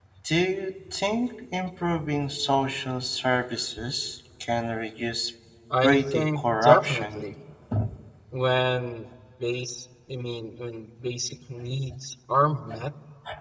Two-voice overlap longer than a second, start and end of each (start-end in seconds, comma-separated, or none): 5.8-7.2